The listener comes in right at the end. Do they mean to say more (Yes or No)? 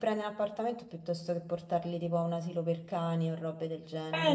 Yes